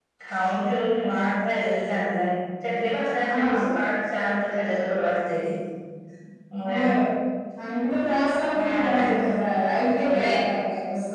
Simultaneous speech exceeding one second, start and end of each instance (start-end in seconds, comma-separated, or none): none